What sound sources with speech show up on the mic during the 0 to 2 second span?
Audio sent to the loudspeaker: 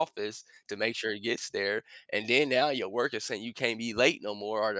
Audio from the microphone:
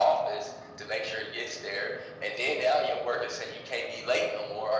echo only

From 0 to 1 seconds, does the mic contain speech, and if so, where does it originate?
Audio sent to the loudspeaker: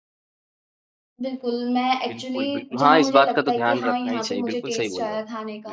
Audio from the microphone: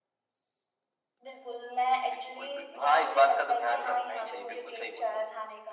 neither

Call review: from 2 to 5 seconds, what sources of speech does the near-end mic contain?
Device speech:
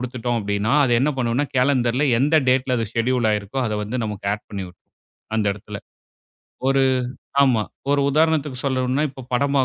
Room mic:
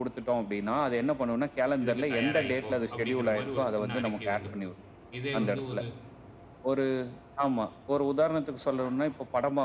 both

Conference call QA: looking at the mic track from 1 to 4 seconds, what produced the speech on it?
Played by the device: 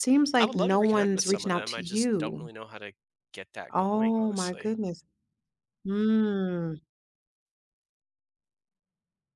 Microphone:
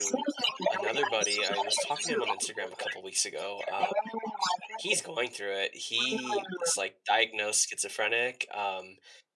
both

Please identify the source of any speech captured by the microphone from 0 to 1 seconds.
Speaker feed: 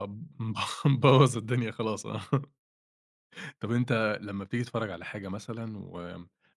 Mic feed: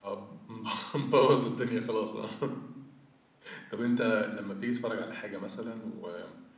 echo only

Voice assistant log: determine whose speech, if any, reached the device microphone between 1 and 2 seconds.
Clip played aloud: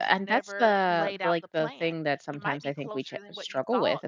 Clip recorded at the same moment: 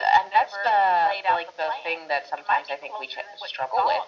echo only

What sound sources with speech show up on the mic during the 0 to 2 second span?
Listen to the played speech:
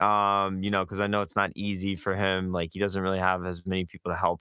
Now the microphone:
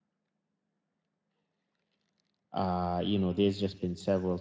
neither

